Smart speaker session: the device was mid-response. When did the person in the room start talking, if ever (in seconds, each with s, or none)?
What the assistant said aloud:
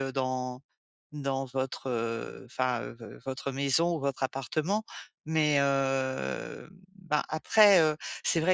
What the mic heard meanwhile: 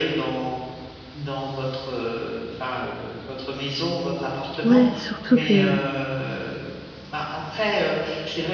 4.6 s